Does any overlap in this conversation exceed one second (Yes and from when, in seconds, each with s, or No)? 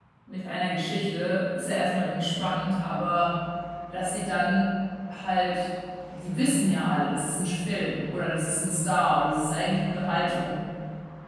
No